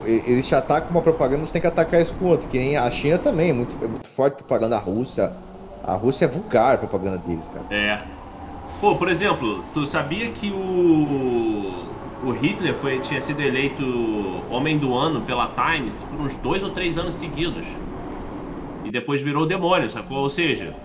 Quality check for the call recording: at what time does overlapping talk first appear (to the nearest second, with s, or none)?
none